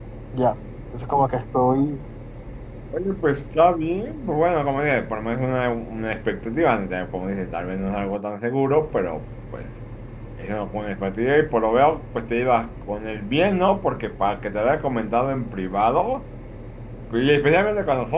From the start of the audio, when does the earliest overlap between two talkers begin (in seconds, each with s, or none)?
none